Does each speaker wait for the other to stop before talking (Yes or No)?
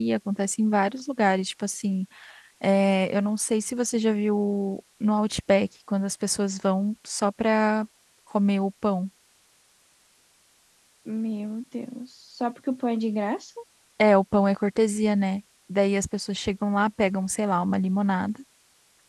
Yes